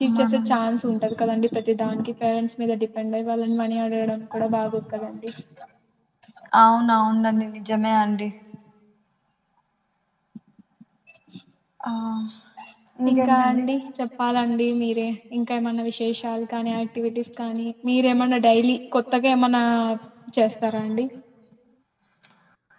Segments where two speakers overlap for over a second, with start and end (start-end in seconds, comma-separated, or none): none